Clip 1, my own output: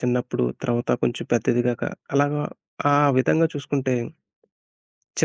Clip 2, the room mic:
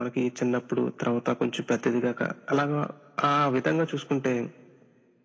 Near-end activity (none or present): none